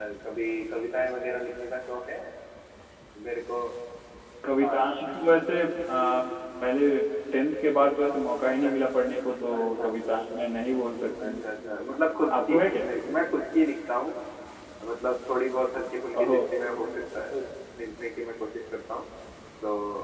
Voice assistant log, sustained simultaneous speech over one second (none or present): none